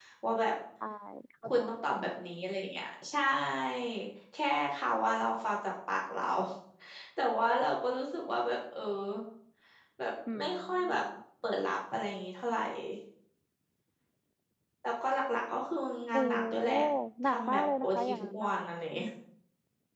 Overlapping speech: Yes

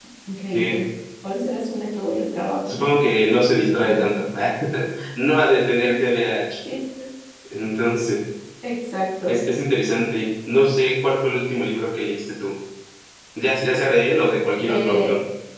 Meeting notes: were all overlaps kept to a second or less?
Yes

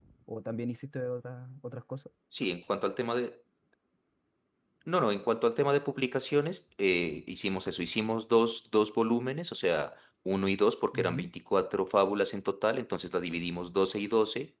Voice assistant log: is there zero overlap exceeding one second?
Yes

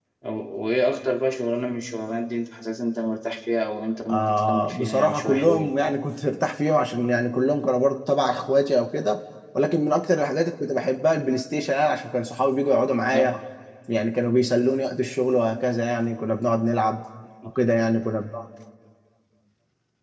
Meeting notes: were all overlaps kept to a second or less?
No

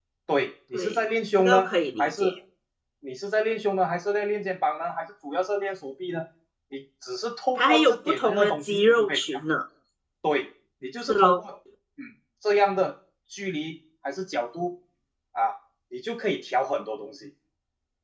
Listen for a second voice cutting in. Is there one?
Yes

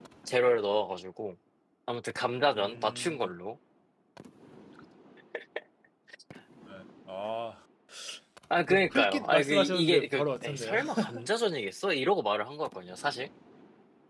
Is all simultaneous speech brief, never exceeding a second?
No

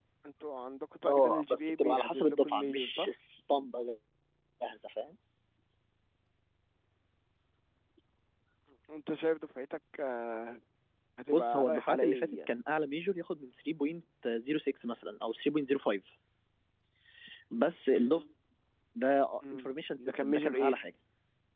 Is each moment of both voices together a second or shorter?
No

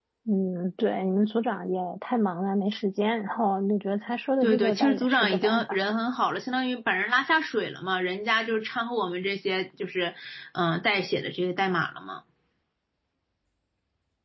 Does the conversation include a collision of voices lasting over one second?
Yes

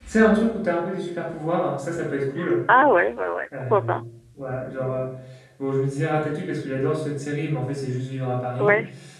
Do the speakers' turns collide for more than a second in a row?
No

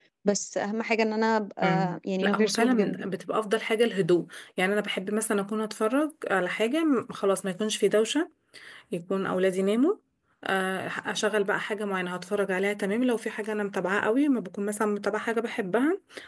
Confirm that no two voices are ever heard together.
No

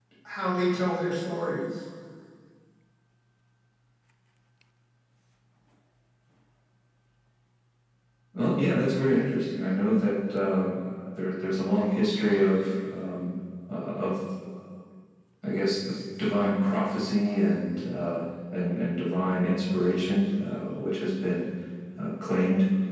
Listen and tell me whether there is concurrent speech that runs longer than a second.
No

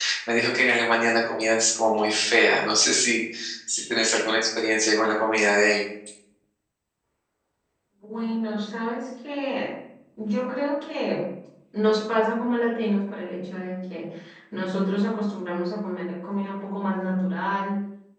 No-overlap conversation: Yes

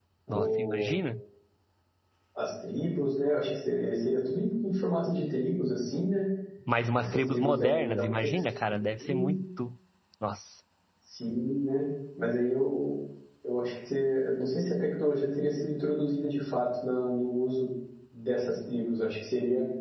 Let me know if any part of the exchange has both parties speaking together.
Yes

